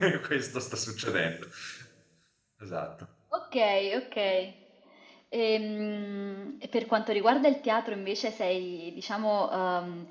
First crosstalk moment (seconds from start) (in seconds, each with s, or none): none